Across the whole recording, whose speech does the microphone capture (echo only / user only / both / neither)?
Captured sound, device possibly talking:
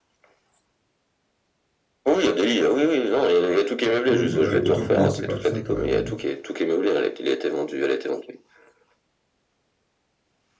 both